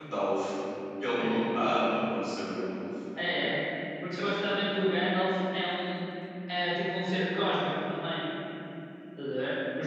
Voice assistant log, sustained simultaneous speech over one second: none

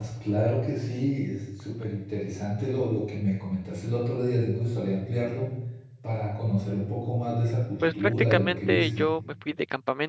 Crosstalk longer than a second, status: present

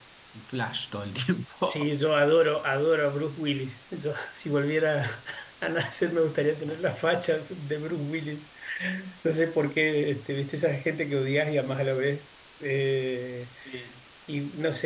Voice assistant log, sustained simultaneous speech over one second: none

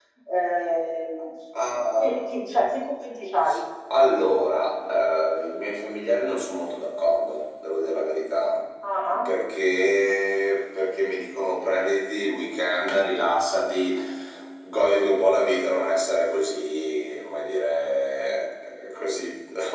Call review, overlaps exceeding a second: none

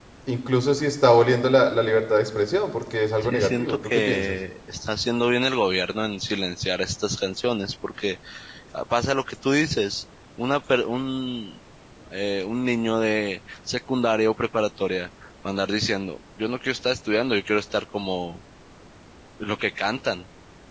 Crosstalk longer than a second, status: present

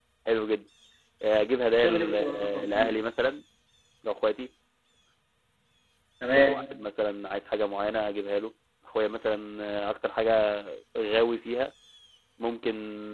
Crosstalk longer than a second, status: present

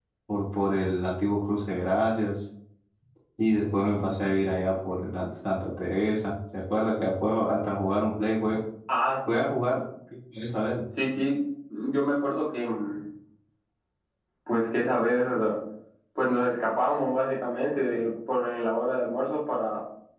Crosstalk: none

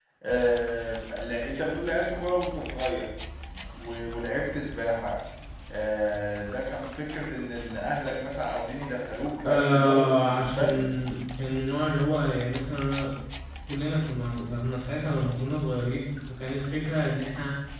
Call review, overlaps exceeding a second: present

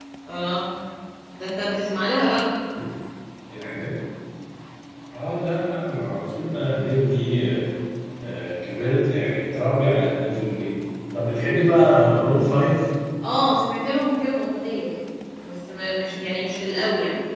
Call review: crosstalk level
none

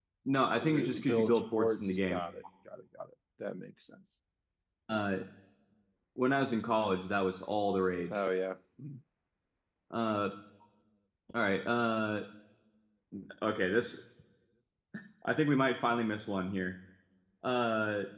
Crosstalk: present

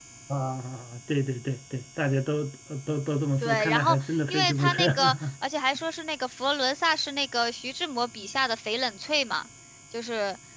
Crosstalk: present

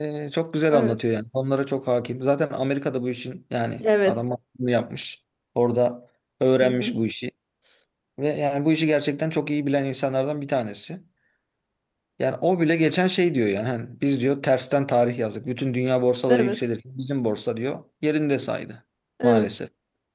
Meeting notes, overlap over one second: none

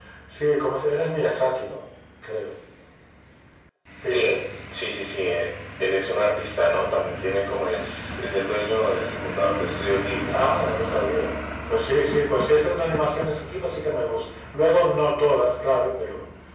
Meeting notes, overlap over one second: none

